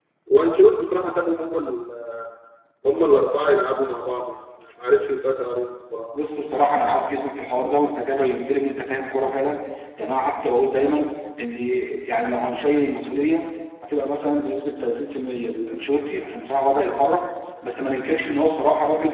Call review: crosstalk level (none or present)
none